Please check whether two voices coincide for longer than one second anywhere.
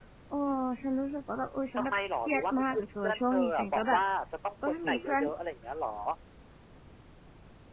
Yes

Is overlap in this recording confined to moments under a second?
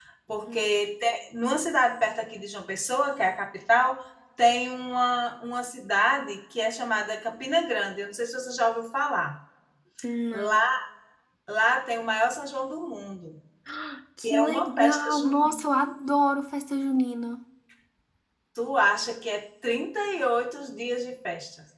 No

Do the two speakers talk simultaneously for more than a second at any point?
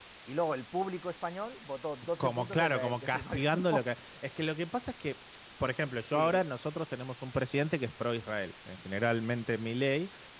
Yes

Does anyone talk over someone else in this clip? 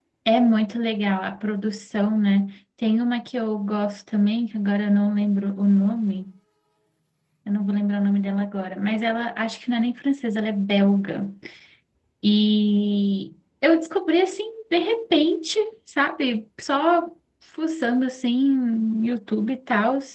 No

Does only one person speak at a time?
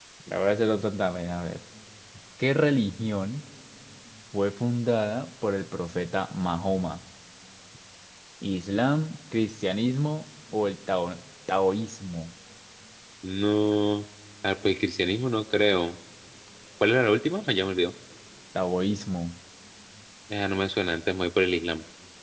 Yes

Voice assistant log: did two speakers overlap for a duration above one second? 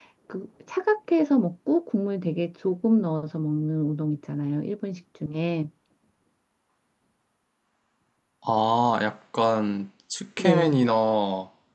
No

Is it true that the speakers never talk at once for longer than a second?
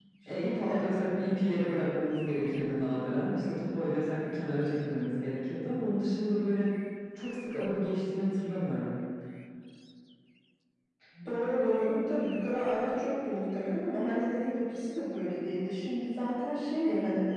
Yes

